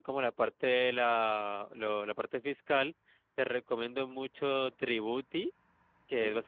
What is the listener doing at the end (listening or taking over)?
listening